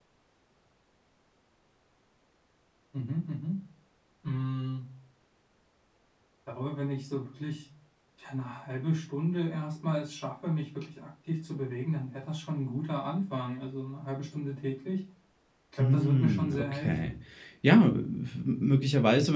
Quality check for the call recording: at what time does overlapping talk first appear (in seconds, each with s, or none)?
15.8 s